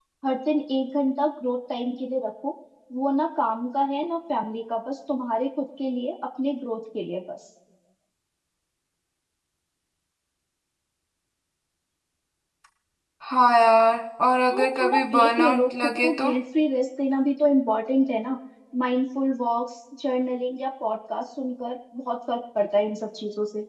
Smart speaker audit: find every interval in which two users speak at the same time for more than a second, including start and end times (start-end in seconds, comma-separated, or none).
14.5-16.3